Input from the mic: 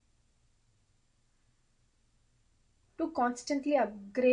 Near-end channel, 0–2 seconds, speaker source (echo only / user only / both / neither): neither